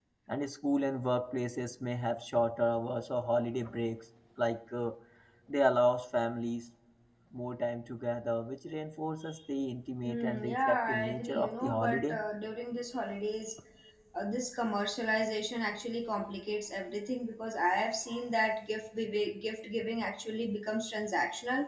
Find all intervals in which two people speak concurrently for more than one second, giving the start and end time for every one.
10.1-12.2

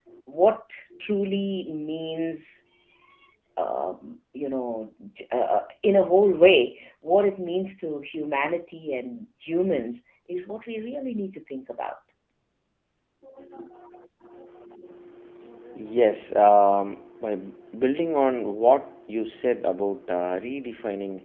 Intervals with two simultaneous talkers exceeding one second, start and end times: none

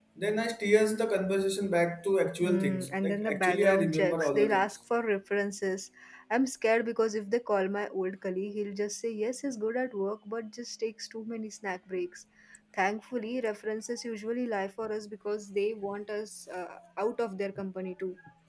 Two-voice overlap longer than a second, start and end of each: 2.4-4.8

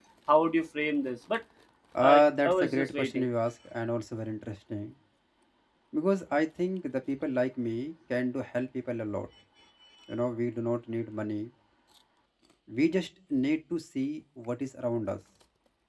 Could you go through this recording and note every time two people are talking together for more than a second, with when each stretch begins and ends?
2.0-3.3

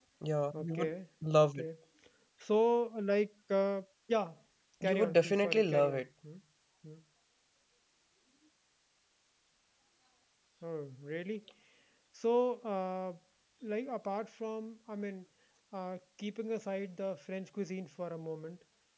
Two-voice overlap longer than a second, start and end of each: 4.8-6.1

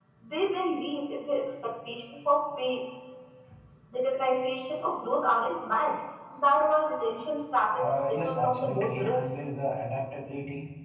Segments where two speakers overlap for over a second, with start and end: 7.8-9.2

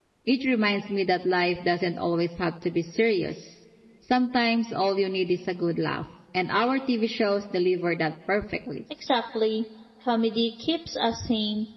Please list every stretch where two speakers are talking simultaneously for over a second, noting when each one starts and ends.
none

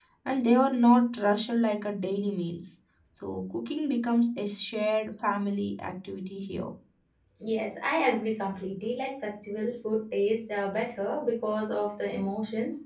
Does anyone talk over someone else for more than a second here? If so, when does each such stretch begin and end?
none

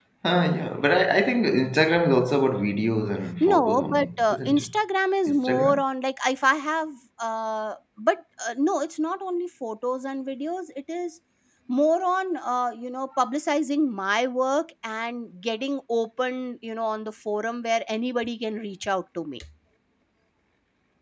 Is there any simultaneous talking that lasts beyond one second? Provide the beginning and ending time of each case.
3.4-4.8

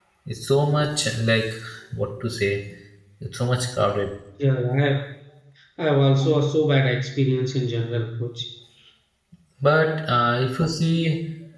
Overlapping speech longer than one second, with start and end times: none

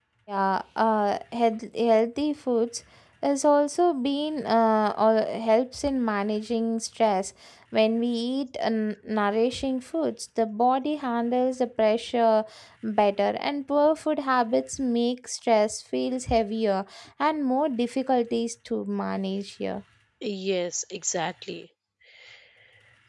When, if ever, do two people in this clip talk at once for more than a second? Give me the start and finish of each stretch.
none

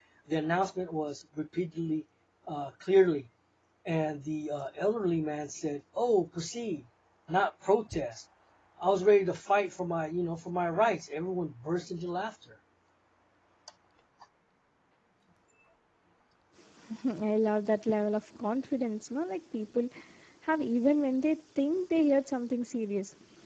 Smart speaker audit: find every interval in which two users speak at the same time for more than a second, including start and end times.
none

